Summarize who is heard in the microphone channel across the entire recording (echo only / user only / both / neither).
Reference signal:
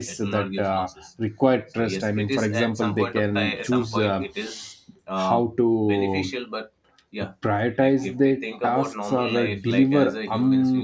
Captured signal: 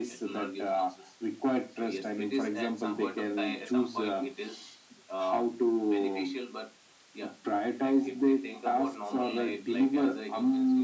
echo only